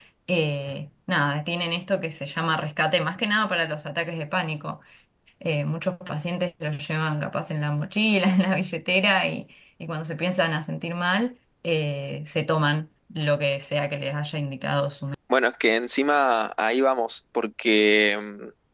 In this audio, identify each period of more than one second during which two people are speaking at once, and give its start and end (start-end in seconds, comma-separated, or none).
none